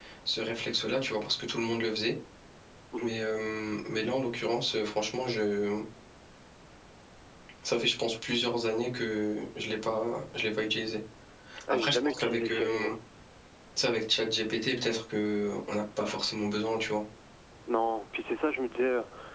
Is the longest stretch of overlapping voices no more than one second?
No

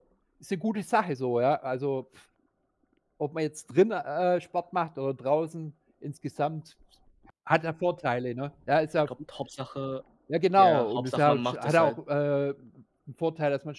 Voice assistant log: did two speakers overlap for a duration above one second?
Yes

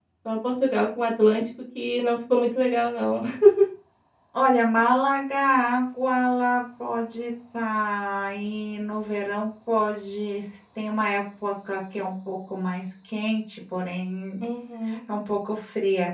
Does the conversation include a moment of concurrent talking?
No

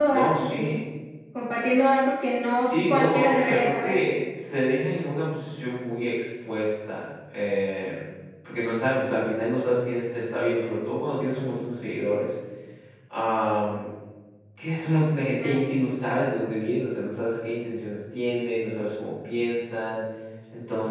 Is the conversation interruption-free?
No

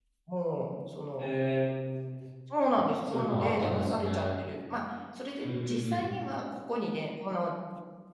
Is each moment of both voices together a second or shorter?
No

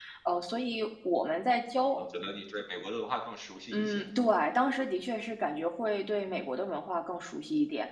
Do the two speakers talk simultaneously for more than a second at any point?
No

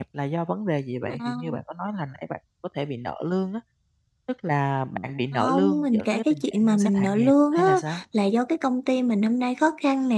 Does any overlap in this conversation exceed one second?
Yes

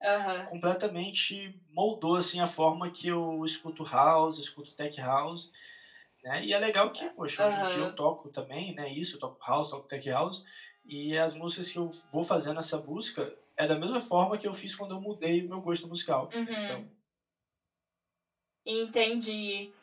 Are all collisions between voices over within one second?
Yes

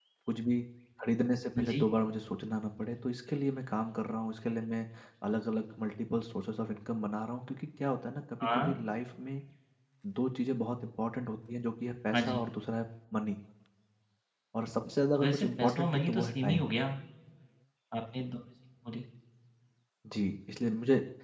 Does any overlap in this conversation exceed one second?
Yes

